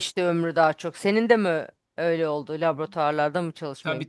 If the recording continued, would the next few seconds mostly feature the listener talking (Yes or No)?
Yes